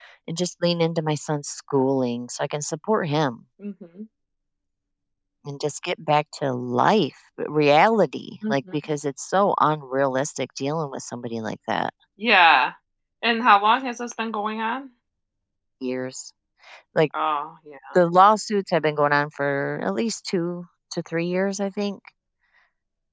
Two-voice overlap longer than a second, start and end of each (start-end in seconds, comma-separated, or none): none